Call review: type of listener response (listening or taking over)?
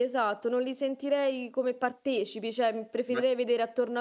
listening